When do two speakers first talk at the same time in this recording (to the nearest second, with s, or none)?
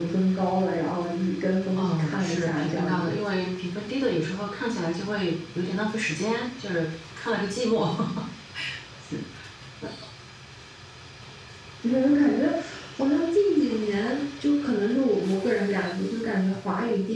2 s